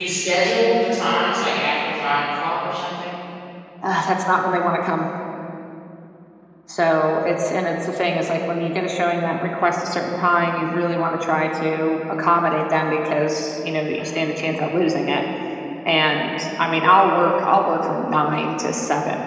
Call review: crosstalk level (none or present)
none